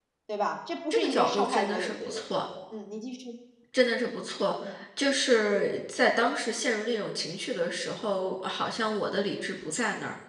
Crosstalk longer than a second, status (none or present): present